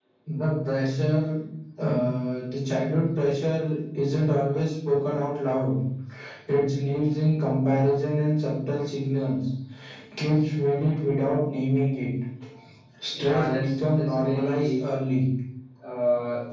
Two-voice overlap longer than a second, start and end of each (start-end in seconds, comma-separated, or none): 13.1-14.8